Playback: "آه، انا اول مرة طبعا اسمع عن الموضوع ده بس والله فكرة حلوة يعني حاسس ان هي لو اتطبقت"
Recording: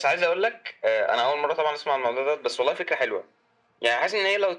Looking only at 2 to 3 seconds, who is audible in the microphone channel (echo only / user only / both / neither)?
echo only